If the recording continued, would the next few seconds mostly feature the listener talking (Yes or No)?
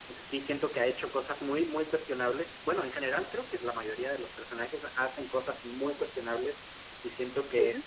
No